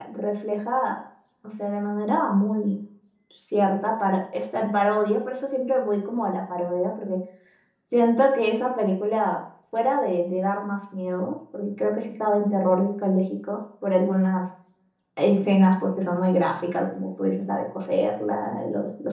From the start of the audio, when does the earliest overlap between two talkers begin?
none

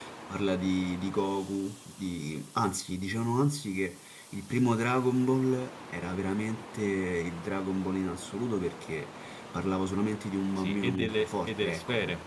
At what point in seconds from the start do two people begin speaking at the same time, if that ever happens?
10.6 s

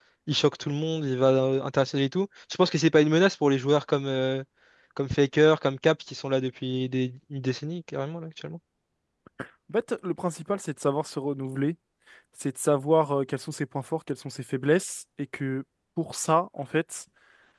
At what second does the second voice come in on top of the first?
none

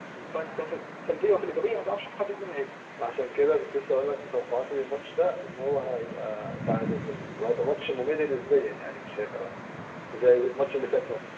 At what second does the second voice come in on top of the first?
none

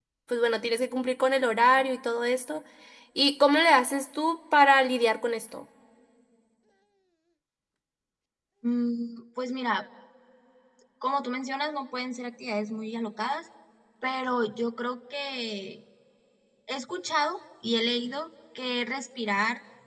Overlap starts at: none

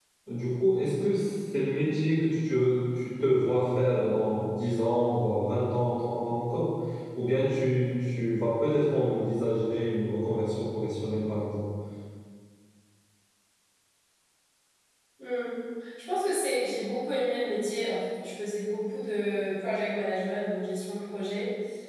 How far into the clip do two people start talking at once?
none

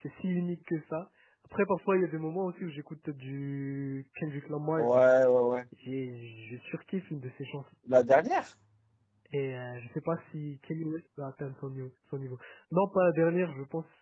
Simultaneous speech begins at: none

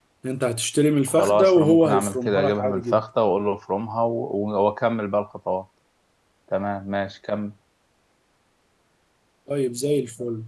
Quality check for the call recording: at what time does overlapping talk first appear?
1.2 s

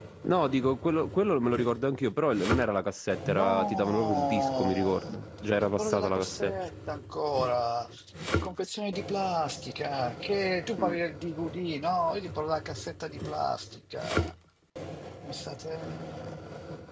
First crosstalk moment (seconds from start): 3.2 s

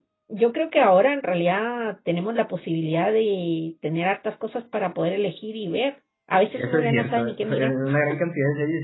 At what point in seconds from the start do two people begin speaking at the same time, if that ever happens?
6.5 s

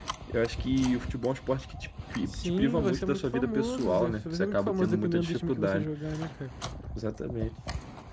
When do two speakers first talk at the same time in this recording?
2.3 s

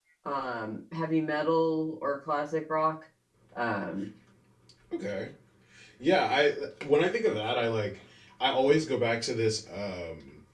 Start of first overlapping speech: none

